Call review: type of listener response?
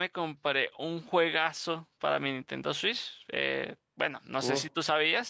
listening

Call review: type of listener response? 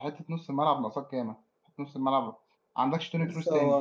taking over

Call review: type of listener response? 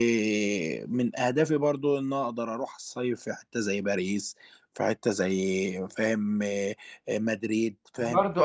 taking over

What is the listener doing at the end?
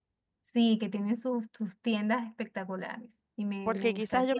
taking over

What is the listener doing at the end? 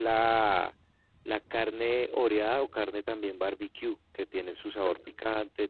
listening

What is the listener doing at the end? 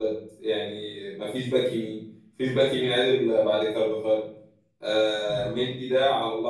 listening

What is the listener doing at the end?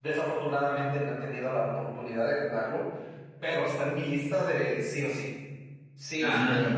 taking over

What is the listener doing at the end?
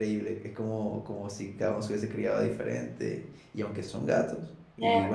listening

